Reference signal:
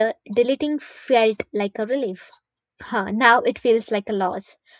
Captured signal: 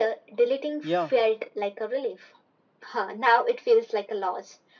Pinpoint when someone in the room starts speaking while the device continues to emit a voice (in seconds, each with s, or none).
0.8 s